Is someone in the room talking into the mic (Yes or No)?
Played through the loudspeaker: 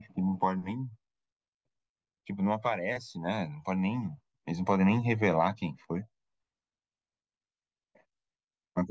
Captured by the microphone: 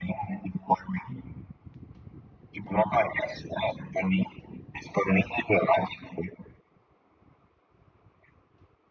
No